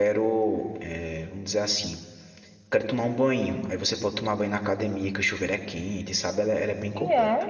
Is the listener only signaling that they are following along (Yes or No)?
No